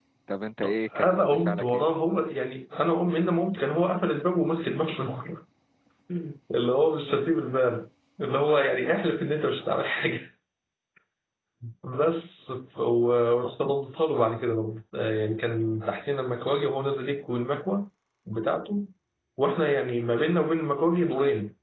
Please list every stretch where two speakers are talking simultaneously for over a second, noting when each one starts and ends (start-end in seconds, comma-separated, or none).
0.6-1.9